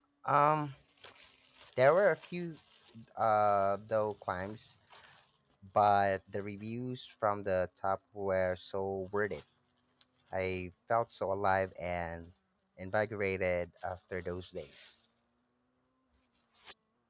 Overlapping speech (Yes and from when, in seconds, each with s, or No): No